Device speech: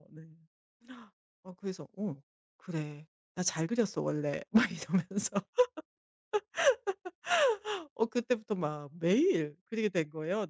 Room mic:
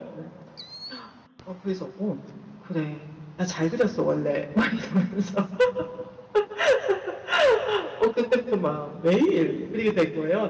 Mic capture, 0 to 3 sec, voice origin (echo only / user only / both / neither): echo only